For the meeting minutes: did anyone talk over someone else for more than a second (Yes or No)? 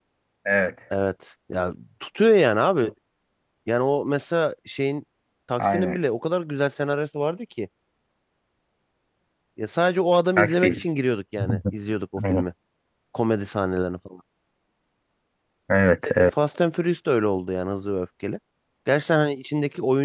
No